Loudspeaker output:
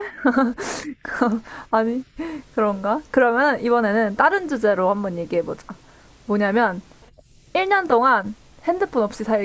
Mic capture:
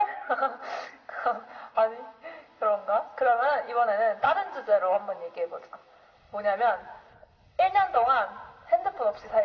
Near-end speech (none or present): none